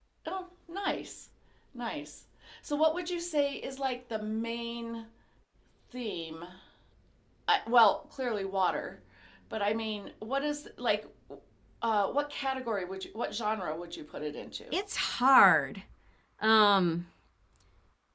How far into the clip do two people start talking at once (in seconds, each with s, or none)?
none